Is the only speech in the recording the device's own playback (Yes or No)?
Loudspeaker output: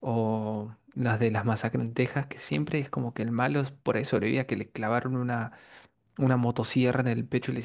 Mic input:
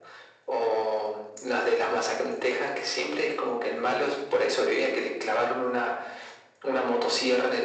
Yes